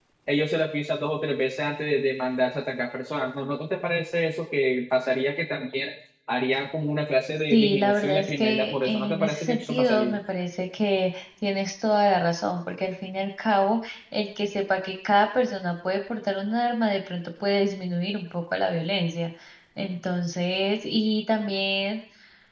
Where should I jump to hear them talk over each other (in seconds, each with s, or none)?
7.5 s